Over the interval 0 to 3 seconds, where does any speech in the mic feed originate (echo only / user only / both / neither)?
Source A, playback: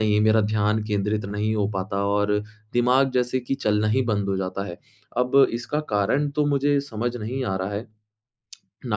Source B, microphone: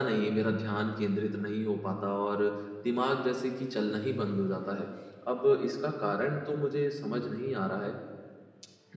echo only